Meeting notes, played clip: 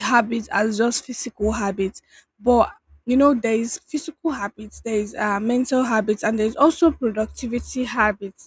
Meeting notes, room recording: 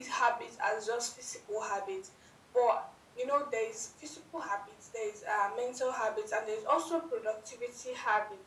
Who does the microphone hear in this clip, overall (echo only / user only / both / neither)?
echo only